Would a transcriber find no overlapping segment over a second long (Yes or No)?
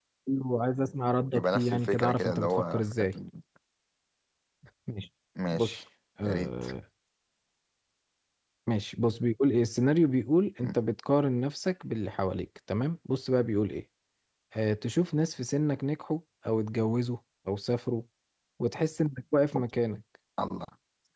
No